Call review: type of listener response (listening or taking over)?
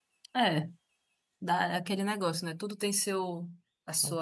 listening